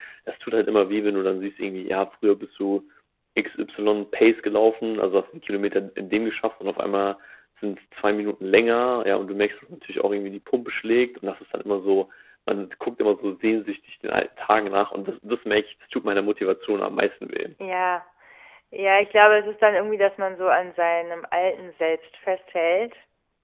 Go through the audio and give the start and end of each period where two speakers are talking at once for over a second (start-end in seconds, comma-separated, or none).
none